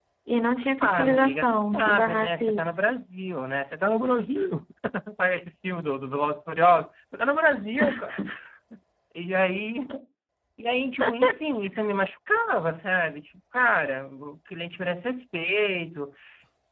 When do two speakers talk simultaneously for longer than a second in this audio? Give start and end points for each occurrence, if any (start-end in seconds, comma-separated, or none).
0.8-2.8